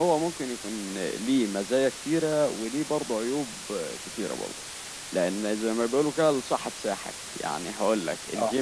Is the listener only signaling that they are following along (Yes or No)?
Yes